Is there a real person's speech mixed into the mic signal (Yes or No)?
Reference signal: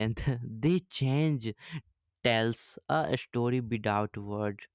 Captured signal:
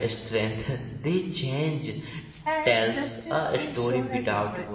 Yes